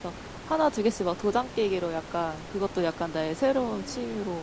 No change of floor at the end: Yes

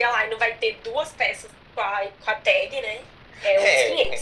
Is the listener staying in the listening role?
No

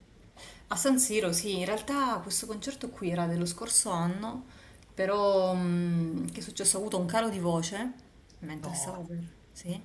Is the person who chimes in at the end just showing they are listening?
Yes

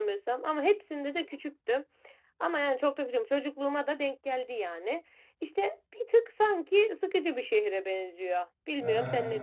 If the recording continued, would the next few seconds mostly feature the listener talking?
Yes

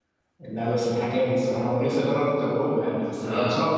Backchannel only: Yes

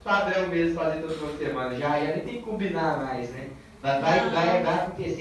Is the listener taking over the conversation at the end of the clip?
No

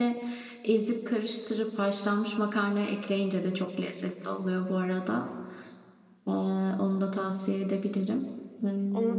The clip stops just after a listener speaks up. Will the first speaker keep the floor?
No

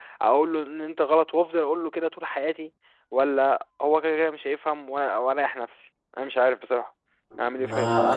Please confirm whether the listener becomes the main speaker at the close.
Yes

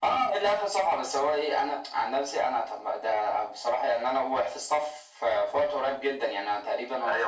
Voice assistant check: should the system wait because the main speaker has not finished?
No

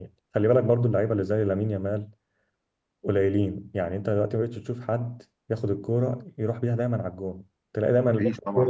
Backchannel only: Yes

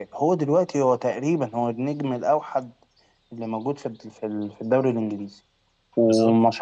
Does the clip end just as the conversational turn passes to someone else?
No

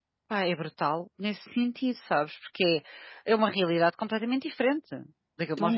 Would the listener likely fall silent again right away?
No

